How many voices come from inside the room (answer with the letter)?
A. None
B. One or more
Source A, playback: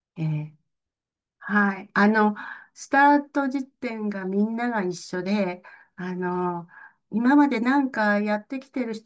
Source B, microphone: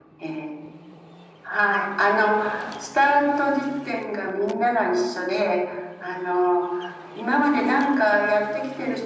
A